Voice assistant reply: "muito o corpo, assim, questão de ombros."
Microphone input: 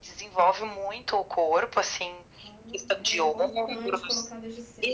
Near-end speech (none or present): present